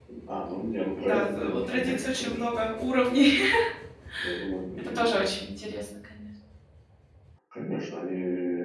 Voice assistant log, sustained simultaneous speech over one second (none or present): present